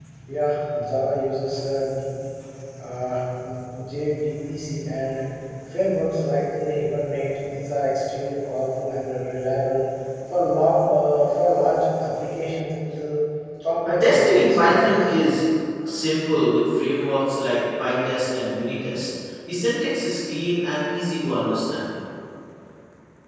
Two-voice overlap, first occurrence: 13.8 s

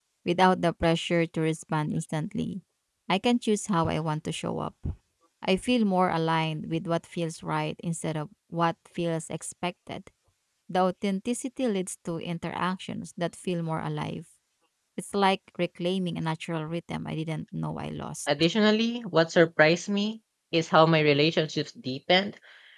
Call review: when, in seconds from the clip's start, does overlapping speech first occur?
none

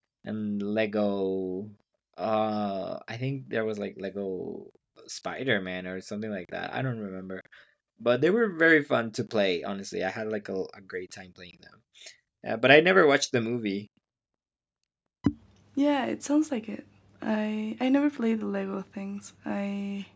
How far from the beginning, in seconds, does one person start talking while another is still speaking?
none

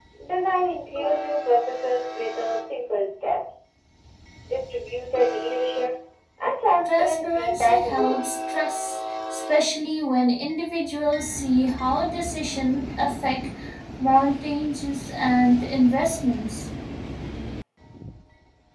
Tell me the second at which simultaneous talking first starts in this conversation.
6.8 s

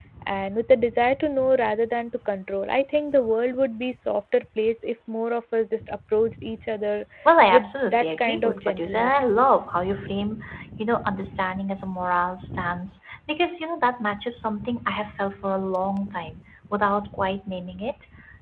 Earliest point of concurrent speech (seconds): 7.5 s

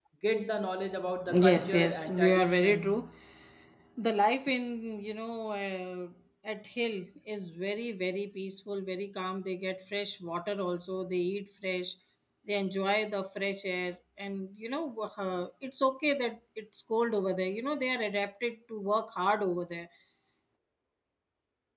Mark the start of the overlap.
1.3 s

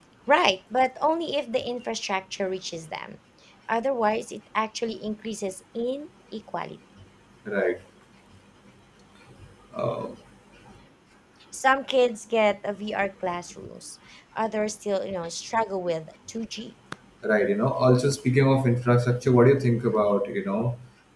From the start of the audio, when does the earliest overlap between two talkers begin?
none

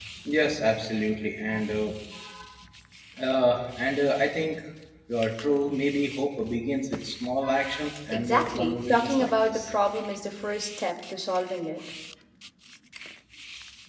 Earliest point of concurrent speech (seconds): 8.1 s

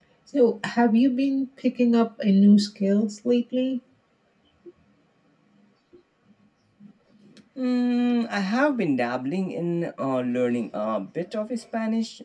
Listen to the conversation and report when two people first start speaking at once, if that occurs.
none

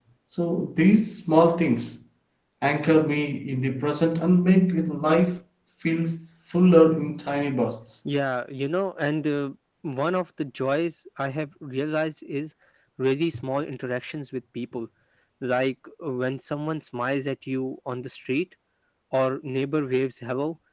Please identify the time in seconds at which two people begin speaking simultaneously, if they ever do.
none

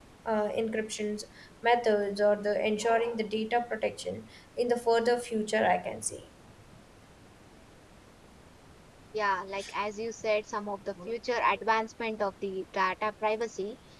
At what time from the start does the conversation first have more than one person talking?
none

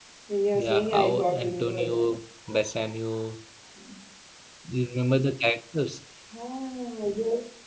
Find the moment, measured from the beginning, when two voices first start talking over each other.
0.6 s

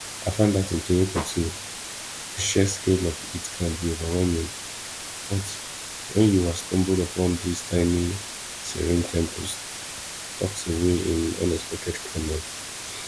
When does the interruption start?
none

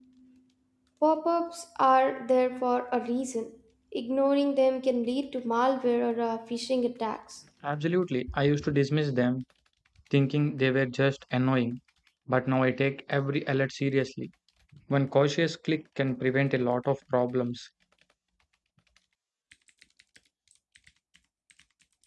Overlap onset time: none

